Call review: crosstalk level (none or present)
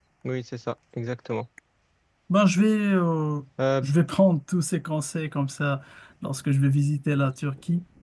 none